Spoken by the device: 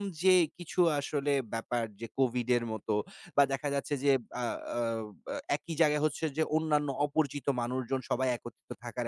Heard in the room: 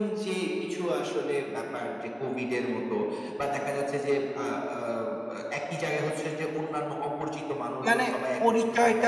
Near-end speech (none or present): present